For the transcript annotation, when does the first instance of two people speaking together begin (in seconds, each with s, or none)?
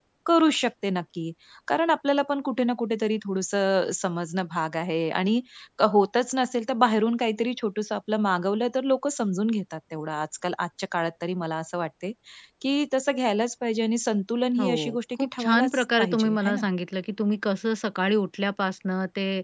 14.6 s